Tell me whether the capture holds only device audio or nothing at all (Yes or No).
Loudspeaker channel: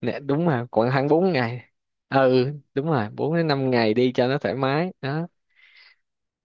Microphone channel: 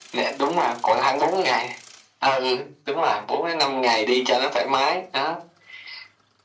Yes